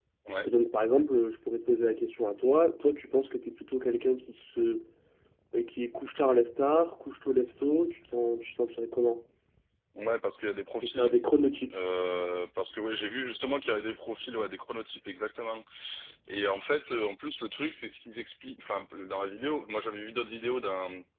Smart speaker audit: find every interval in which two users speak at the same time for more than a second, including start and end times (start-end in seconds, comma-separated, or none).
none